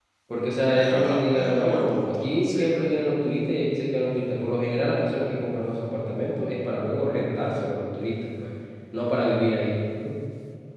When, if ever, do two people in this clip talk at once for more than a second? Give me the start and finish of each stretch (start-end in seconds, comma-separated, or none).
0.8-2.7